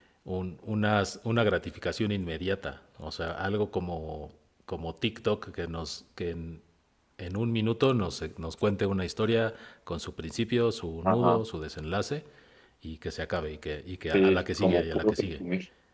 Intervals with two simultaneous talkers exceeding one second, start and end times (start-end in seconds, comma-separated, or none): 14.1-15.4